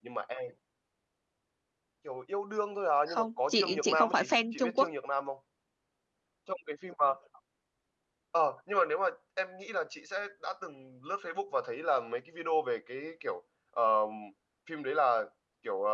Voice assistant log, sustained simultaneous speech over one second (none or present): present